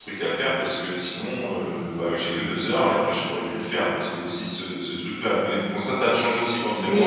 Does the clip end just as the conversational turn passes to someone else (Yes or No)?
Yes